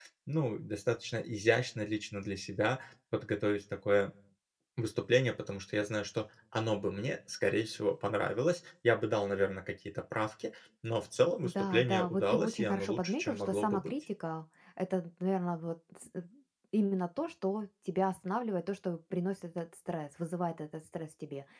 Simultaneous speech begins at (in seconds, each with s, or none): 11.4 s